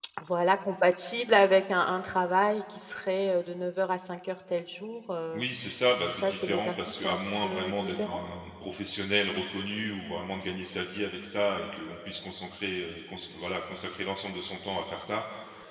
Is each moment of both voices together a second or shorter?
No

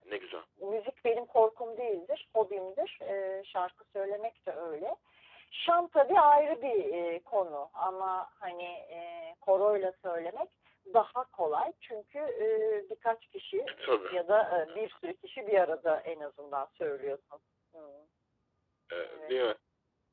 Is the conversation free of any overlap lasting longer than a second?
Yes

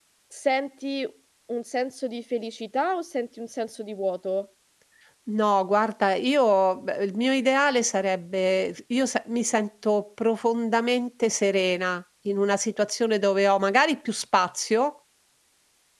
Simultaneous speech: No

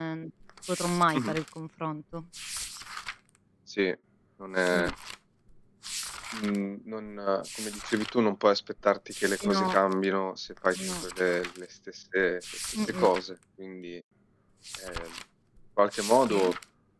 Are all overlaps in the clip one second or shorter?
Yes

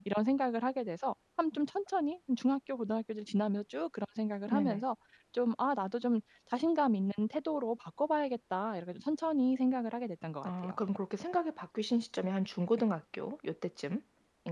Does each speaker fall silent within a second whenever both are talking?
Yes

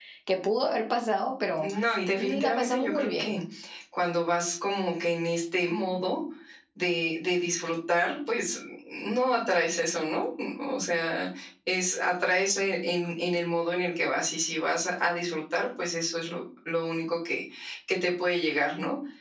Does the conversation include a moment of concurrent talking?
Yes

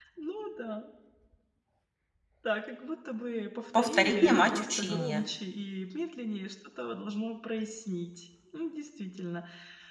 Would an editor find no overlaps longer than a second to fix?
No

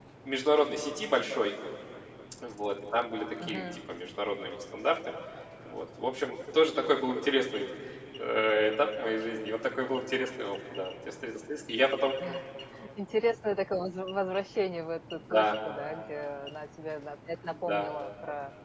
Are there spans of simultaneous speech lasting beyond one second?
No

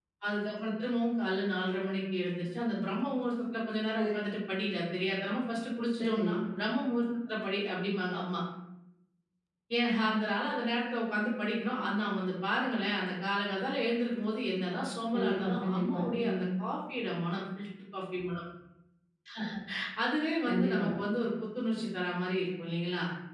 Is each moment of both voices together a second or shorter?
No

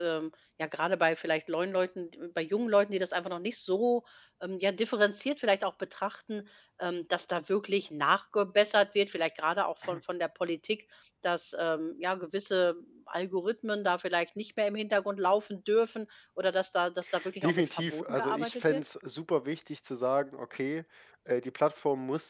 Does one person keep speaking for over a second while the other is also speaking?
Yes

